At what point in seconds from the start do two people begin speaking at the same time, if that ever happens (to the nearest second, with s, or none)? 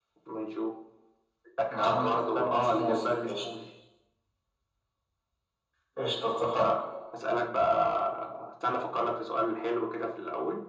2 s